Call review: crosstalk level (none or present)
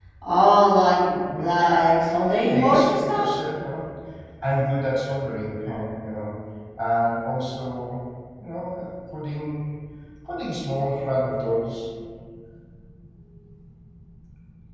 present